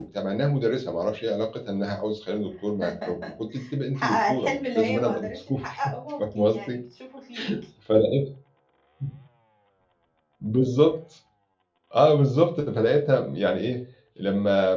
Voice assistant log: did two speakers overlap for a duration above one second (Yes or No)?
Yes